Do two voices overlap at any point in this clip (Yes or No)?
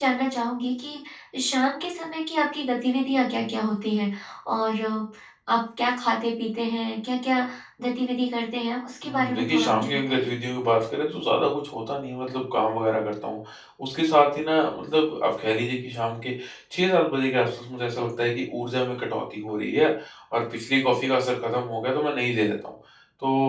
Yes